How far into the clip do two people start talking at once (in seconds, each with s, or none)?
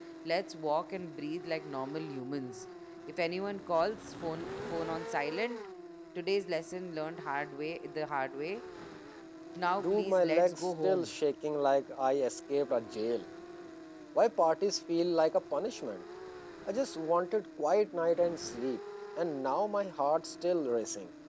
9.8 s